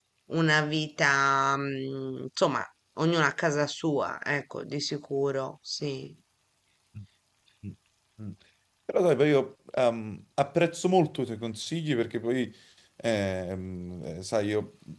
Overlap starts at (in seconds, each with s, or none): none